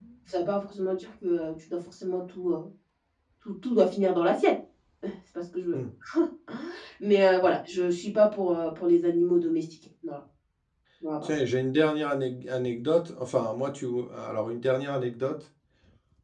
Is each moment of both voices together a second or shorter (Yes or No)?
Yes